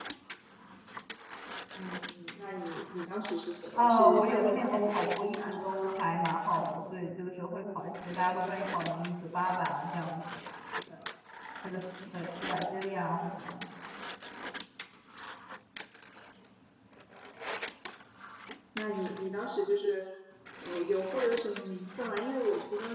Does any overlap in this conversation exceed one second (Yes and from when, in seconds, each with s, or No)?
Yes, from 3.7 s